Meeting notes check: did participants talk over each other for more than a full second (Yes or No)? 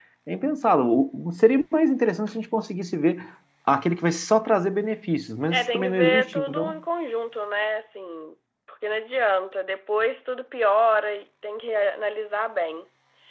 Yes